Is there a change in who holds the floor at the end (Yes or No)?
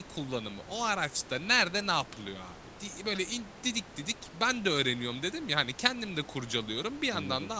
No